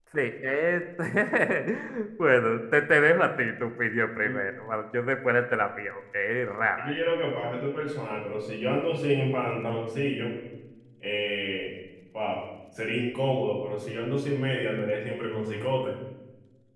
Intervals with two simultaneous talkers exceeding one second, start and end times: none

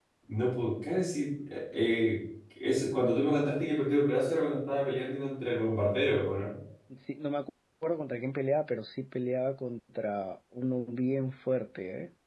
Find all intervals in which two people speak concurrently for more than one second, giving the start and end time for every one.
none

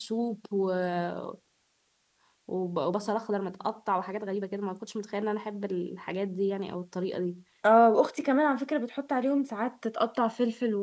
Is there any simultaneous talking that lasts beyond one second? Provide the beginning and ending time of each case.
none

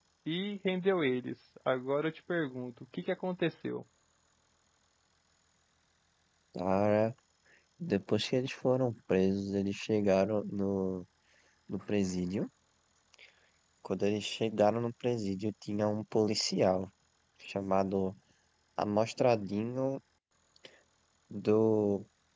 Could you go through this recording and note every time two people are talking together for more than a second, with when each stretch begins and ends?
none

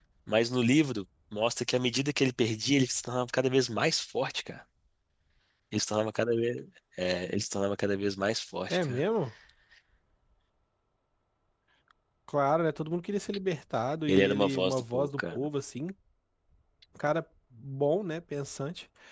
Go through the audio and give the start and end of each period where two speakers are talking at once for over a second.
14.1-15.5

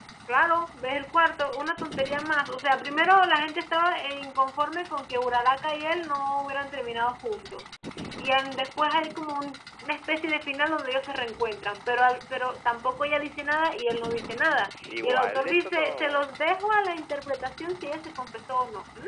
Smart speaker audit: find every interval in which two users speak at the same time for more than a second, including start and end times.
14.9-16.3

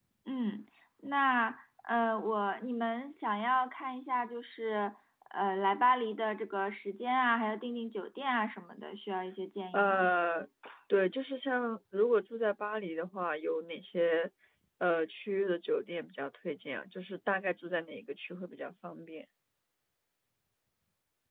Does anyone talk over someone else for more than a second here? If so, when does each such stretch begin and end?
none

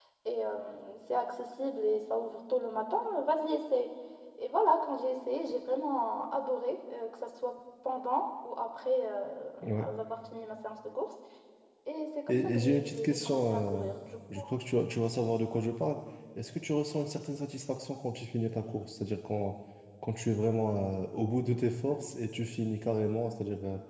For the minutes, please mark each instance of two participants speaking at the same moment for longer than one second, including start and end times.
12.3-13.9

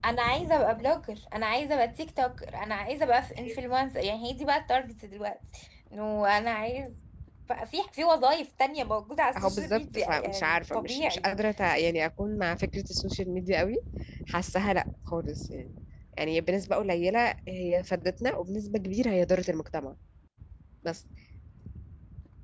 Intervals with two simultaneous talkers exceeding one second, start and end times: 9.4-11.3

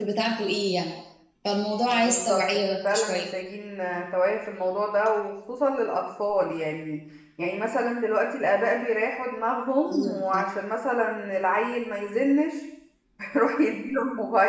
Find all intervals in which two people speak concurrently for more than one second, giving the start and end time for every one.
1.9-3.3

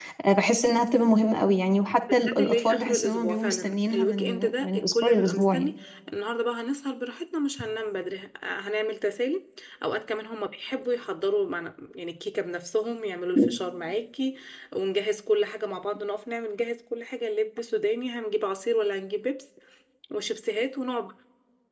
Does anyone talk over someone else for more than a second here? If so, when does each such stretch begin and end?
2.4-5.7

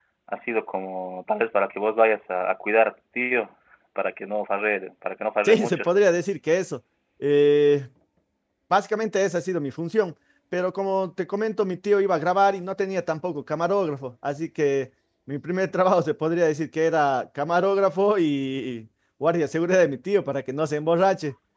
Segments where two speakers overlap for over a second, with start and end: none

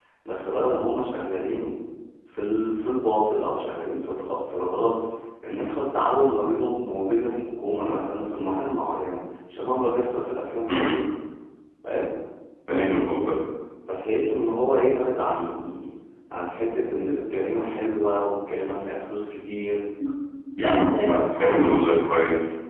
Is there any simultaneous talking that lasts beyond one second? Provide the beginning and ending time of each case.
20.6-21.9

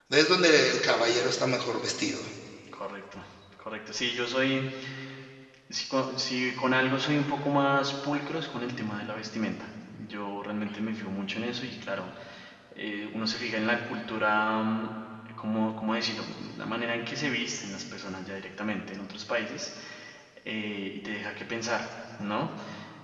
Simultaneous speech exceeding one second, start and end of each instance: none

